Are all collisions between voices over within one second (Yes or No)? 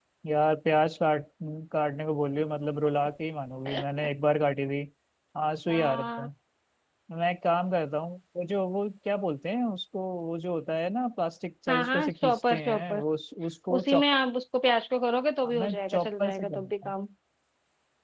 No